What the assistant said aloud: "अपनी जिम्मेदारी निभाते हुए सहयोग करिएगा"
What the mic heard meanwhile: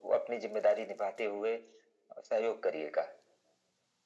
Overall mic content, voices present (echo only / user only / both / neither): echo only